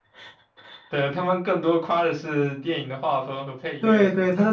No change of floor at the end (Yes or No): No